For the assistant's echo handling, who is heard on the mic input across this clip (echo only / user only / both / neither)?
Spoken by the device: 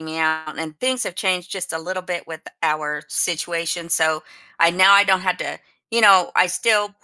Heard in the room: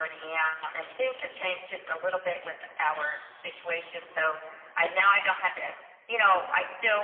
echo only